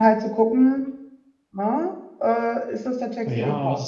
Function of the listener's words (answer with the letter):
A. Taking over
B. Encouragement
A